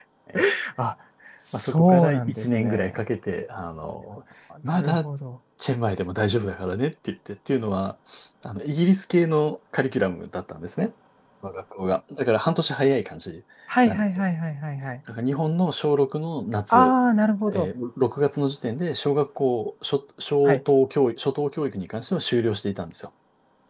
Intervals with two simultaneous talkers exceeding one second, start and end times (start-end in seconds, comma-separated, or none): 1.5-3.0